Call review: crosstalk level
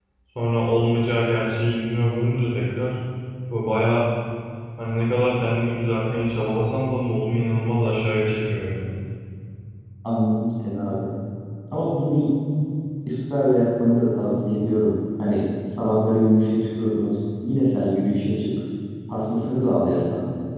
none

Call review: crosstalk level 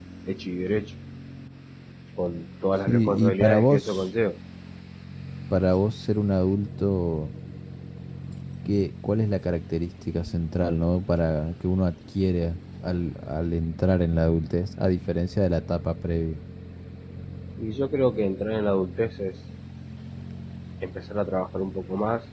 present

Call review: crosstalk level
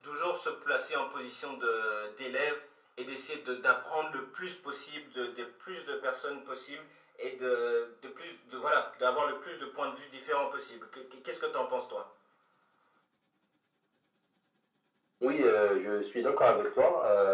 none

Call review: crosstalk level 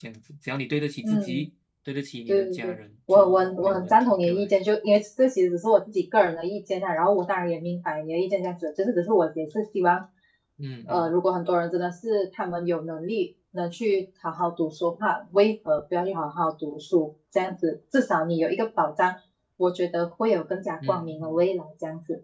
present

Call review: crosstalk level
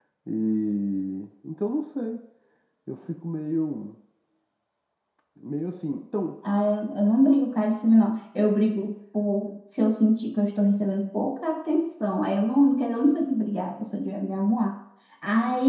none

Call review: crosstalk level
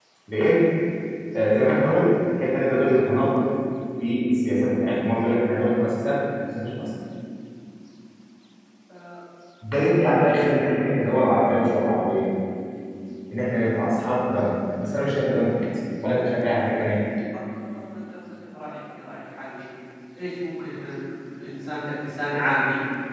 none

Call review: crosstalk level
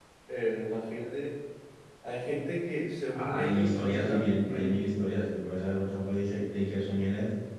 present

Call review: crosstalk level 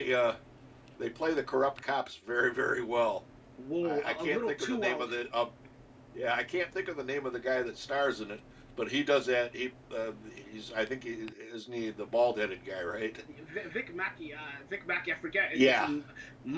present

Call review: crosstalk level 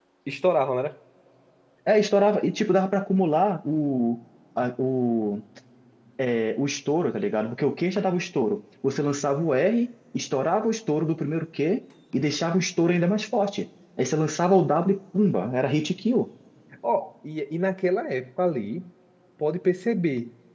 none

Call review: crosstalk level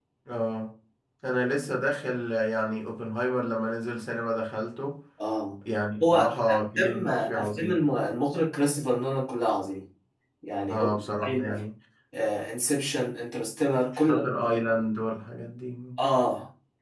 present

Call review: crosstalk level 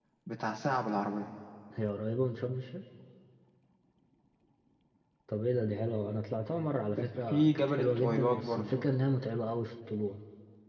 present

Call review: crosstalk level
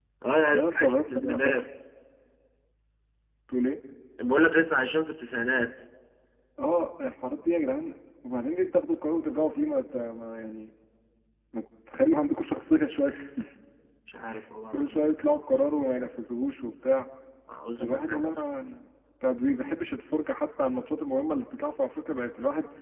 present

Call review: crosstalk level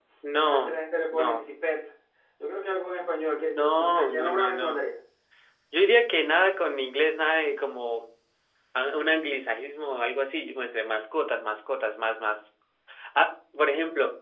present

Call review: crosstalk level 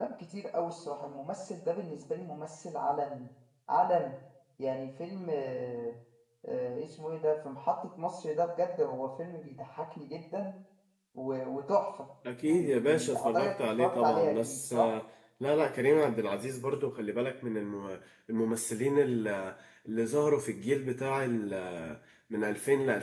present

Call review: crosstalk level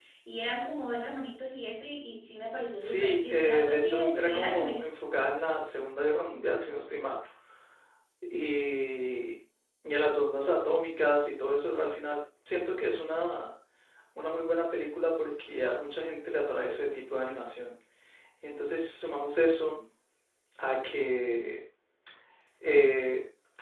present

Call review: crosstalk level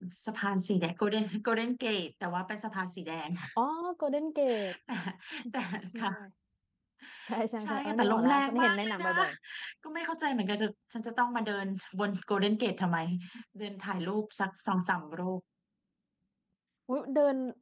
present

